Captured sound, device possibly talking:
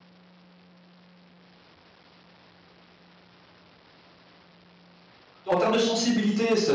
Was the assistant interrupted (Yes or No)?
Yes